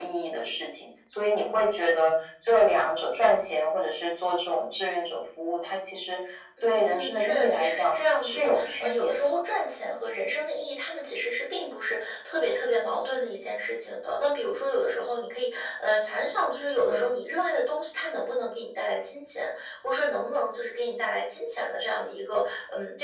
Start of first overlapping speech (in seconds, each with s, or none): 6.6 s